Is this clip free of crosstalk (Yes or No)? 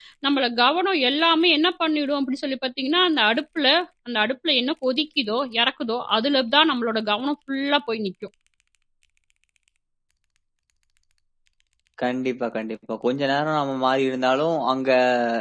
Yes